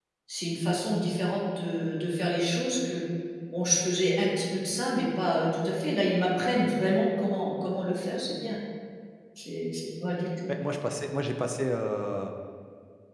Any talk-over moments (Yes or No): No